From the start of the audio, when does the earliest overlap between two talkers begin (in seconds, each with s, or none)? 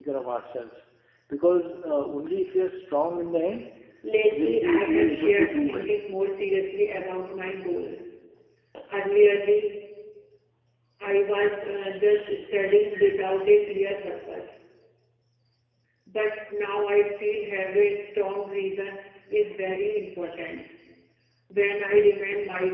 4.3 s